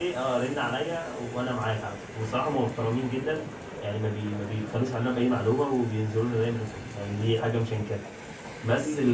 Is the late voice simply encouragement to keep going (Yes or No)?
Yes